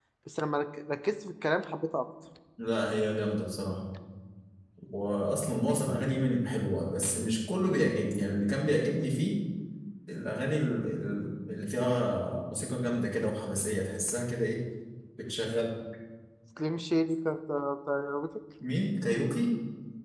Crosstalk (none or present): none